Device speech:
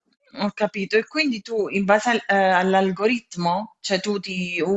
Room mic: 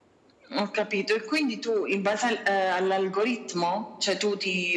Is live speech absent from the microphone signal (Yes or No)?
Yes